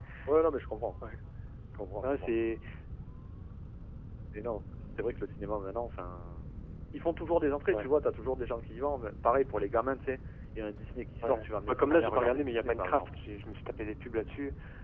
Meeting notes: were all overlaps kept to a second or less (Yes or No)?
No